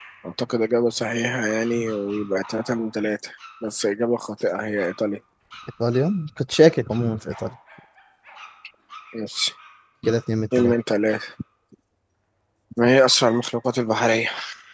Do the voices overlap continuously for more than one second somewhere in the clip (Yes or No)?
No